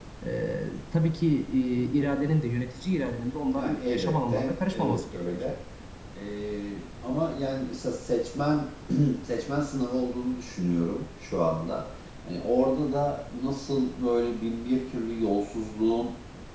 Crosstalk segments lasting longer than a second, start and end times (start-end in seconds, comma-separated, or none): 3.5-5.4